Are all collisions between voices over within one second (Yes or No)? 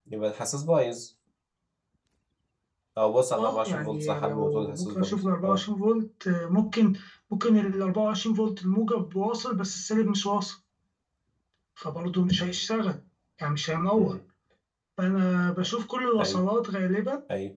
No